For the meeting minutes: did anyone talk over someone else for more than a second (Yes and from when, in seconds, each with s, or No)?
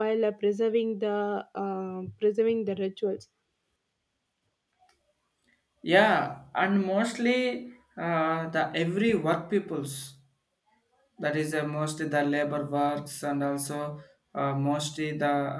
No